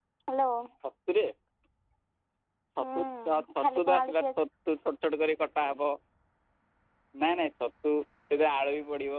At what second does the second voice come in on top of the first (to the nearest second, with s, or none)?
3 s